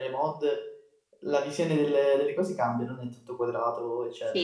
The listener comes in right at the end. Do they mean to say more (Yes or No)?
Yes